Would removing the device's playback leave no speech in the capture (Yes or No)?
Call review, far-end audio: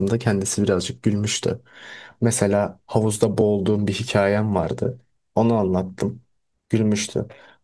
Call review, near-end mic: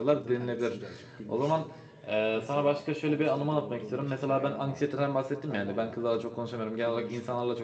No